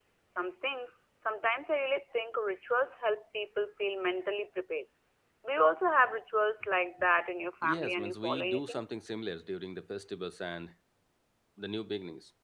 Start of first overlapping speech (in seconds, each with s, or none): 7.6 s